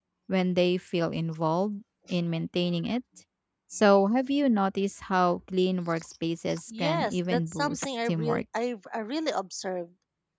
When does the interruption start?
7 s

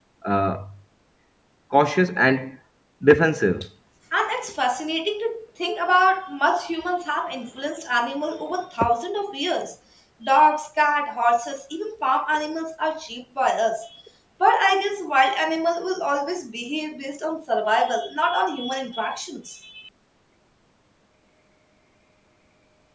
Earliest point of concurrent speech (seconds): none

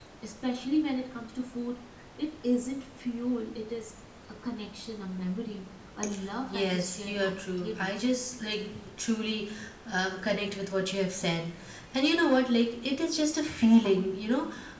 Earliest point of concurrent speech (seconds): 7 s

